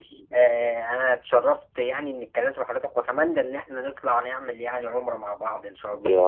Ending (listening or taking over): taking over